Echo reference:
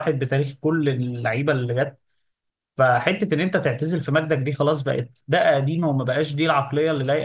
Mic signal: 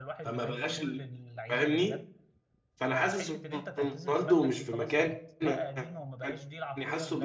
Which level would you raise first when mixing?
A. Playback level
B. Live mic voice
A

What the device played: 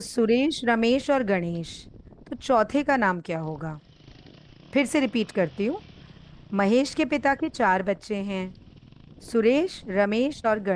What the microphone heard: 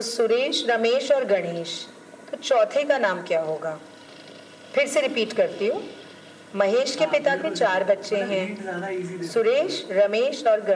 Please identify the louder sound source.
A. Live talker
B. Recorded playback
B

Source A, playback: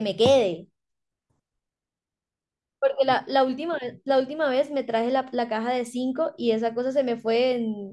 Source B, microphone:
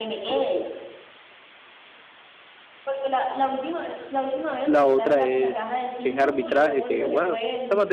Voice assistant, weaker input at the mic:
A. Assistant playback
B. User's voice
A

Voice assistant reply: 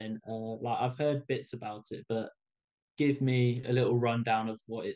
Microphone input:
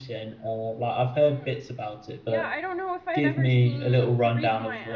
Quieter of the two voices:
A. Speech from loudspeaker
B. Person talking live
B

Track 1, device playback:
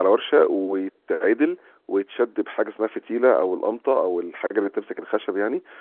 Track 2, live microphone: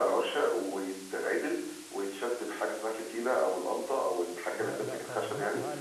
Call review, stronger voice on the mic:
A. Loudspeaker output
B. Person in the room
A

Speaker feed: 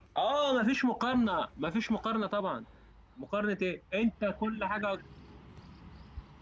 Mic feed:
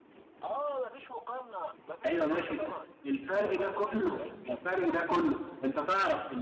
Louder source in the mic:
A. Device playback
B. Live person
B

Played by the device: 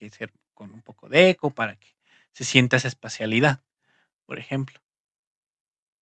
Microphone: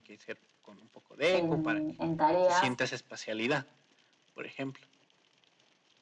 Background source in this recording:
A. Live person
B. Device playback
B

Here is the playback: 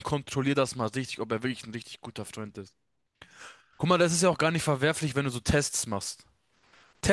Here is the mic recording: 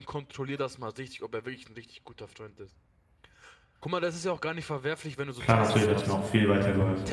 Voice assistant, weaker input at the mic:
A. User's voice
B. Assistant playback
B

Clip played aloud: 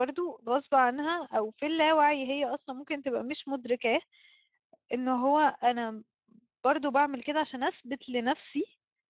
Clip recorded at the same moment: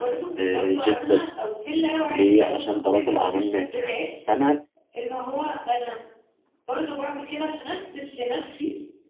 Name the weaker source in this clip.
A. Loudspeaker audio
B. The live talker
A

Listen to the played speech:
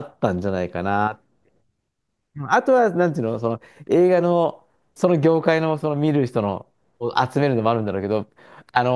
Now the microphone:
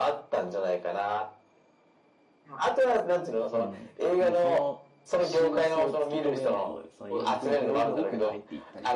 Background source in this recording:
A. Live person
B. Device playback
A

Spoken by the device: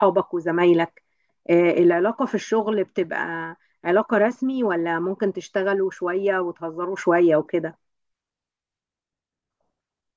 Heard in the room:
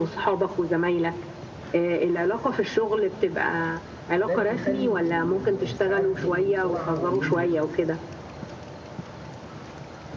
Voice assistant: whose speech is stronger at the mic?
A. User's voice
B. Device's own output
B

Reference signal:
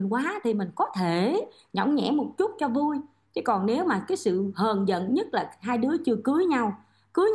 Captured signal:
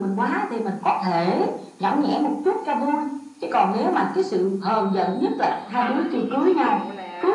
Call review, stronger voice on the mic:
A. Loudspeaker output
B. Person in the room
A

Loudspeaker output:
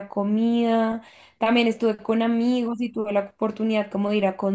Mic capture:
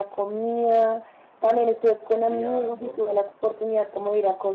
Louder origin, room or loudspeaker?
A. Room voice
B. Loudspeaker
B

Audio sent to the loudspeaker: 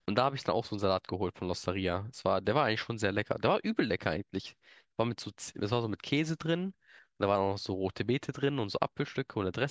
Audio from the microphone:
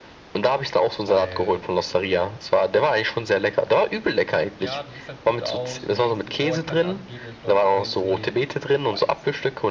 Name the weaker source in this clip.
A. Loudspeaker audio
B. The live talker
B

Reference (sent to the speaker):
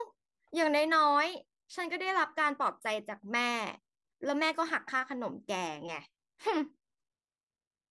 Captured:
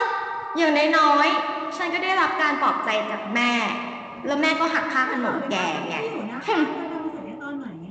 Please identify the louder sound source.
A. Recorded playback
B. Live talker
A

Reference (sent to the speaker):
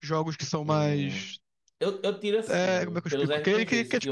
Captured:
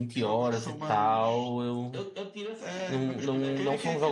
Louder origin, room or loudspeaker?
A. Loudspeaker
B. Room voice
B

